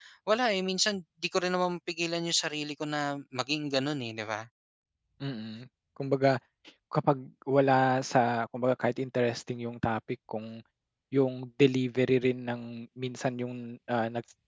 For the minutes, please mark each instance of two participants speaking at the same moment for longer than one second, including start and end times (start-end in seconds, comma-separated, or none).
none